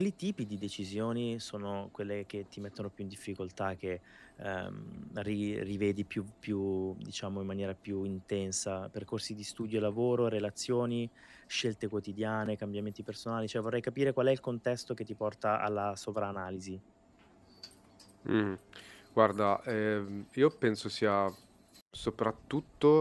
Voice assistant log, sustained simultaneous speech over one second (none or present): none